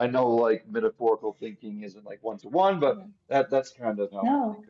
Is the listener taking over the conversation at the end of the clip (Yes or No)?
Yes